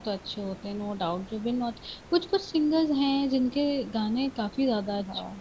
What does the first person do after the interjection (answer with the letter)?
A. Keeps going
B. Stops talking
B